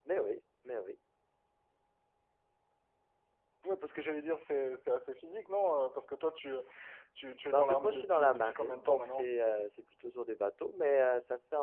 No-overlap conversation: No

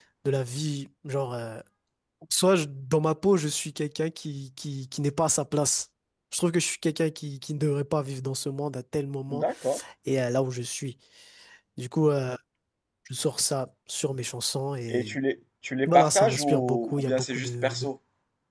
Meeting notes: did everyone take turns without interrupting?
No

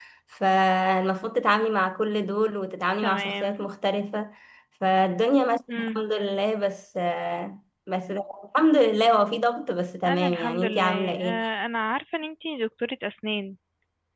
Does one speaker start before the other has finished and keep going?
Yes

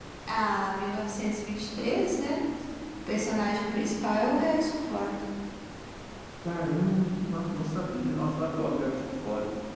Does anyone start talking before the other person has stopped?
No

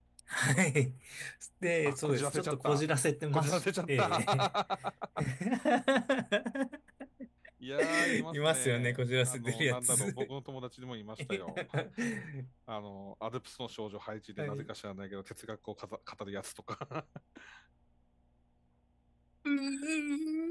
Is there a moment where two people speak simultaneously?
Yes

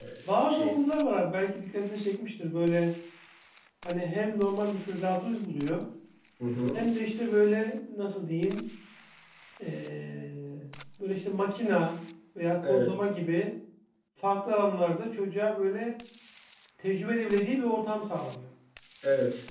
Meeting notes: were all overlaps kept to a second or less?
Yes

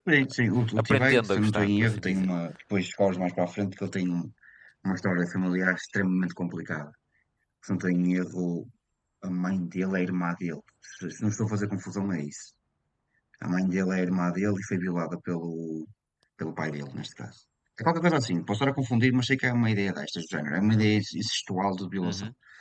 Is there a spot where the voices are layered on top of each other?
Yes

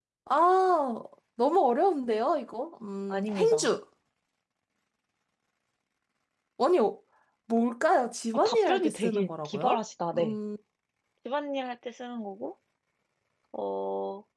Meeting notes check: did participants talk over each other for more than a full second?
Yes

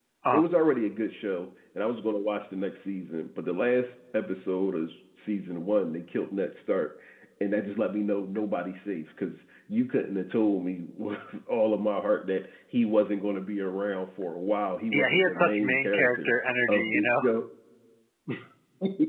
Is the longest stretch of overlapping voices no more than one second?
No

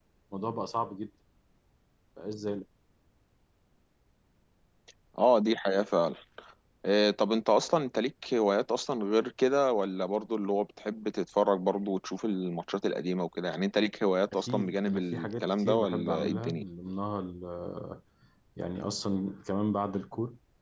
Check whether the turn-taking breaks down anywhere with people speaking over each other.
Yes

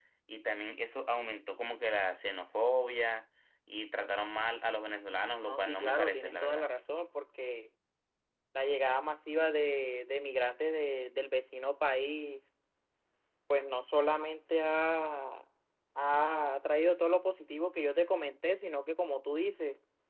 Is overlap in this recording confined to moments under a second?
No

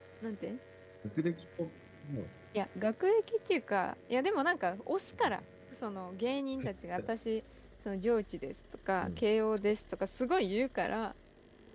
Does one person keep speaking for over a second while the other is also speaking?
No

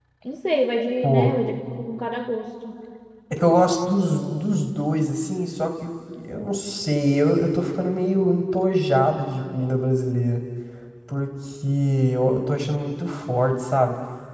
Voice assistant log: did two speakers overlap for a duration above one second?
No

